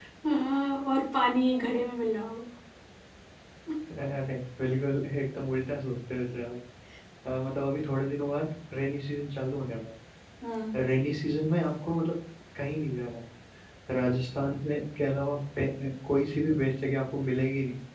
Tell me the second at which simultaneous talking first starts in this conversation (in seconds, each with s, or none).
none